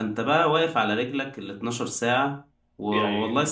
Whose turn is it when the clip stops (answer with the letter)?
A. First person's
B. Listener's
A